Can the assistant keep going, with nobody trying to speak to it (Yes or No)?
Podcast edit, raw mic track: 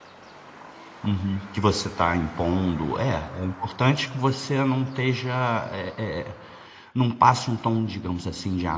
No